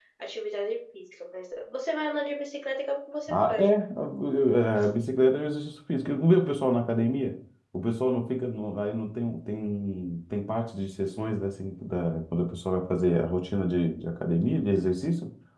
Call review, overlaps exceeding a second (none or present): none